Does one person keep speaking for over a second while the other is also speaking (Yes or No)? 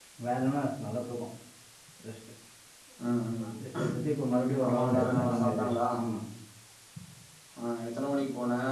Yes